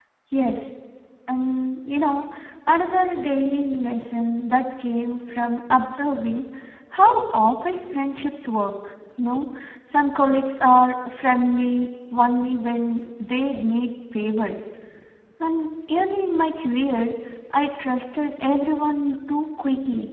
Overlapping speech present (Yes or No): No